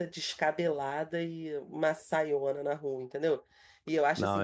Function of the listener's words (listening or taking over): taking over